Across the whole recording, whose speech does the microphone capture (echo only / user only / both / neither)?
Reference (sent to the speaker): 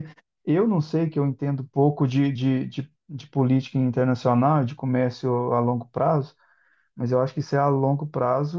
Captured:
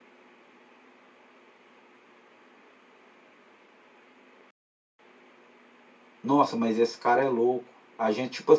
user only